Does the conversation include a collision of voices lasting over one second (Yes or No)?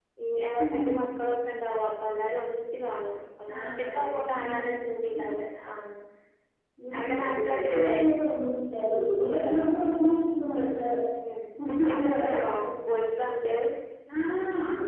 Yes